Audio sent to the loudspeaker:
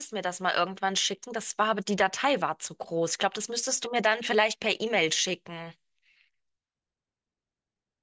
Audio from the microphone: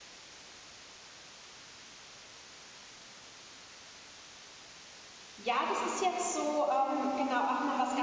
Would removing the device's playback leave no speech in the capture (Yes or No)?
No